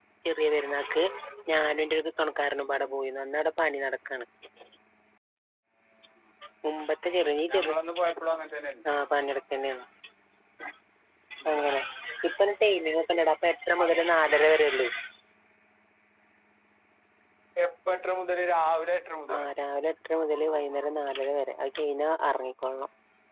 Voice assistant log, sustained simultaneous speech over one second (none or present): none